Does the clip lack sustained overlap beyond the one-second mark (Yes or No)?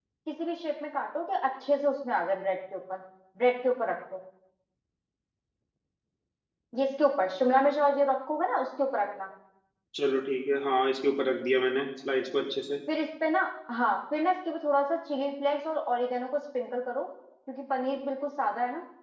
Yes